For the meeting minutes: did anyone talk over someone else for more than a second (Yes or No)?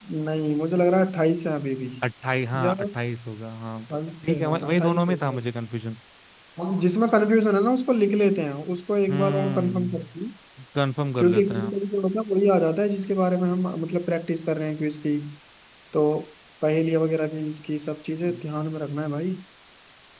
Yes